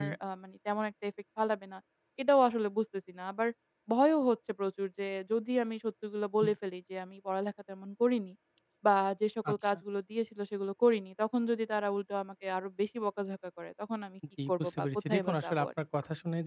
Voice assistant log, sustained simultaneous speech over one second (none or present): present